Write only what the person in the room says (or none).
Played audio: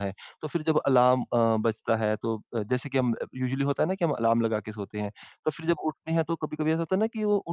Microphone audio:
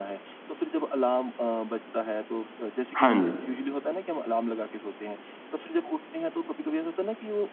हाँ जी।